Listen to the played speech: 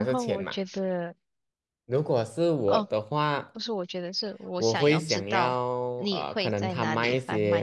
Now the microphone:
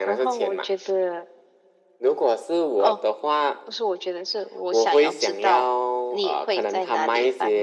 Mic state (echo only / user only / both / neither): echo only